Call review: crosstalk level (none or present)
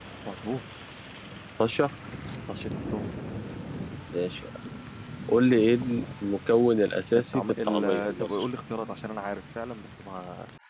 present